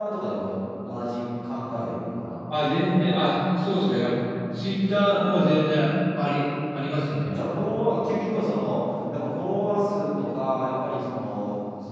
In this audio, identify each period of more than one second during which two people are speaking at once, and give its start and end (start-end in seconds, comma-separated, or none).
none